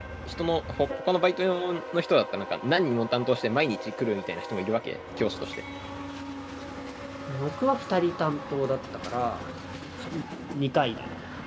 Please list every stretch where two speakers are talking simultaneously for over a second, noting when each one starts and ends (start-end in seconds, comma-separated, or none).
none